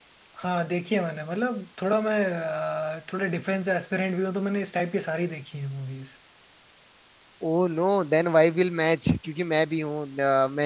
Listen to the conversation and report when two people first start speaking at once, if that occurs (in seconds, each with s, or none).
none